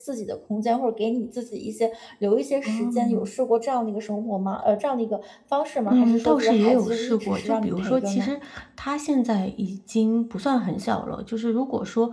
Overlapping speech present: Yes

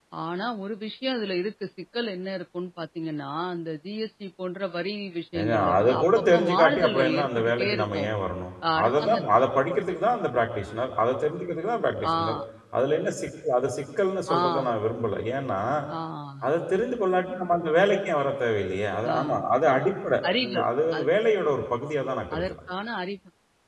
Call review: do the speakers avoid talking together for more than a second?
No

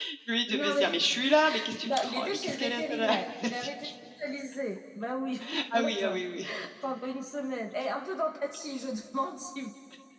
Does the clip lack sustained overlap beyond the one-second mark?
No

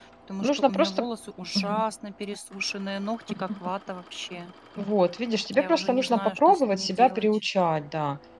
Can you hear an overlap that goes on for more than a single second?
Yes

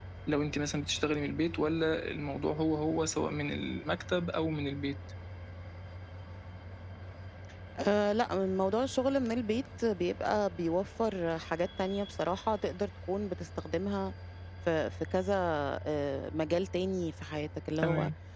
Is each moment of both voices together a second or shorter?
Yes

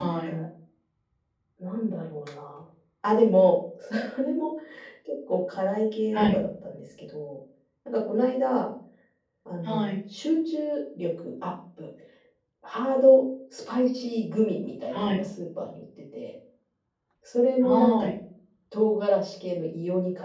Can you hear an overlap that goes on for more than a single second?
No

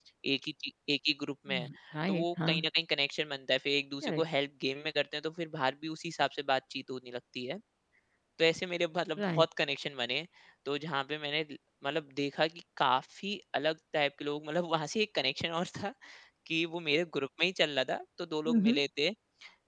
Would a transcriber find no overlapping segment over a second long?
Yes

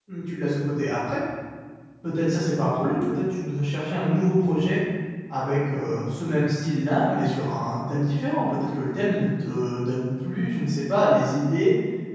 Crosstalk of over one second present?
No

